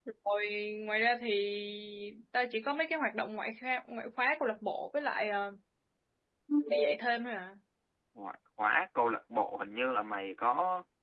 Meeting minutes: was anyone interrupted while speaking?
No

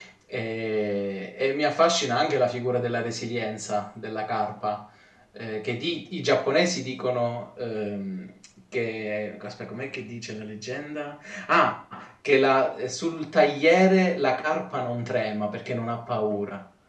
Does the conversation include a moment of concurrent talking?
No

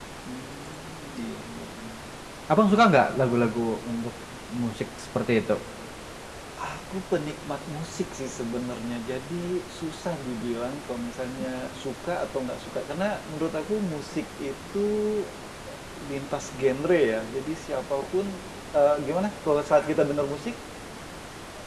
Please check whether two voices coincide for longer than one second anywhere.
No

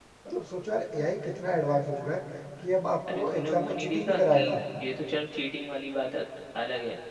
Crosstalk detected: Yes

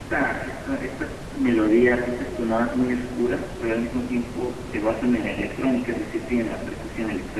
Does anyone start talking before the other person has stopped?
No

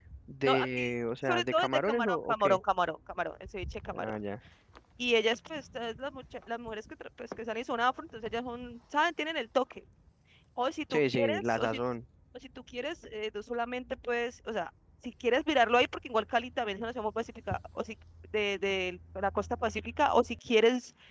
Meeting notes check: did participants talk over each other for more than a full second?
Yes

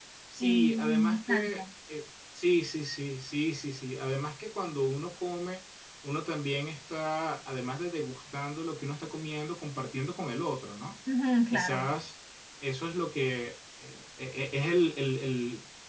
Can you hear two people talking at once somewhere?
Yes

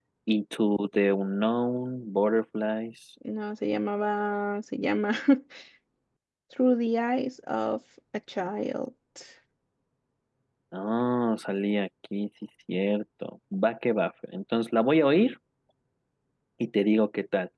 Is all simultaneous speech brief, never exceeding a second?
Yes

